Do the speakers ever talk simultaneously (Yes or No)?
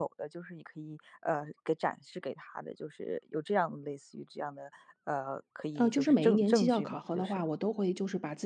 Yes